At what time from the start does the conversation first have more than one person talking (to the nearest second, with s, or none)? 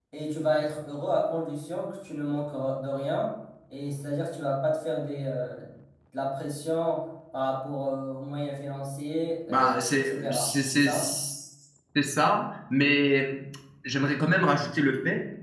9 s